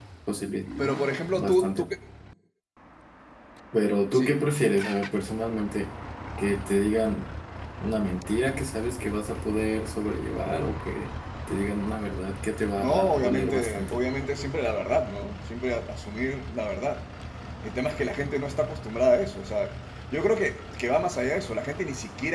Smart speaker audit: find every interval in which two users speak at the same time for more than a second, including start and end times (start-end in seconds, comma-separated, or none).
12.8-14.0